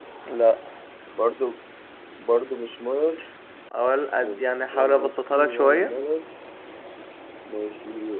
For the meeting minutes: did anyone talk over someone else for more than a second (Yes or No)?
Yes